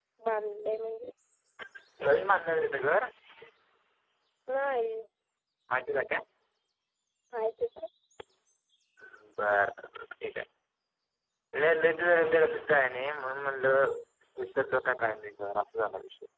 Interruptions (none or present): none